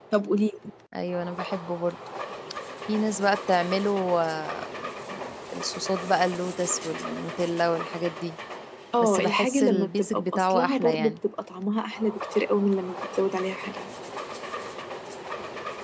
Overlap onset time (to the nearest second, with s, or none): 9 s